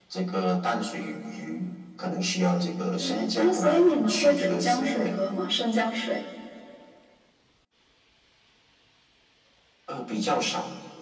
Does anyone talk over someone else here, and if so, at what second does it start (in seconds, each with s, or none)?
3.0 s